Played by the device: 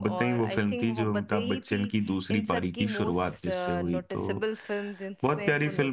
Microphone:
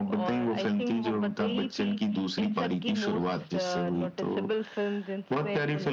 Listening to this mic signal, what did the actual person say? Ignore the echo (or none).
none